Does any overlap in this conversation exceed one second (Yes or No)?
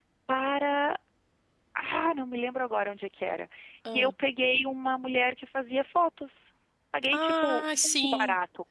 Yes